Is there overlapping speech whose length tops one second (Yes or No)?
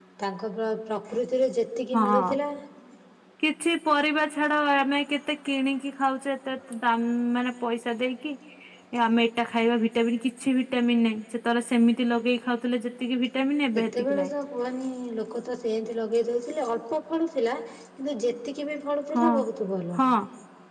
No